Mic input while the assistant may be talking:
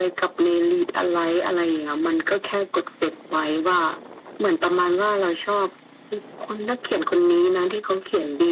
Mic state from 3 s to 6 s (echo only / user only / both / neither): echo only